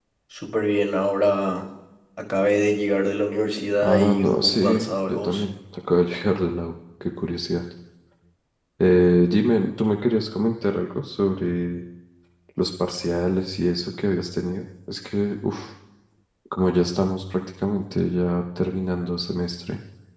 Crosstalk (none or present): present